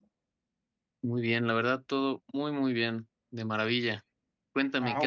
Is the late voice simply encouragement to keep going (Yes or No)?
No